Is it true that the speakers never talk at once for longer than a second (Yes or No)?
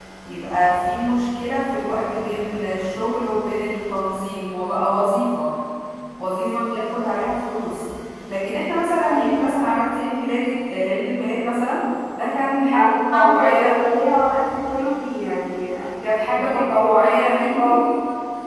No